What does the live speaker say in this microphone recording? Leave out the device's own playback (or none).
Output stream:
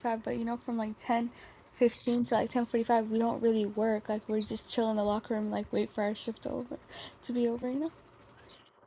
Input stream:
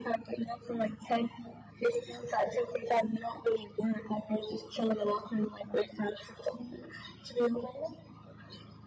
none